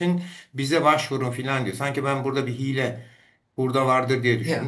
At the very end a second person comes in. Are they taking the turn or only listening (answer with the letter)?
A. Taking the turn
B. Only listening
A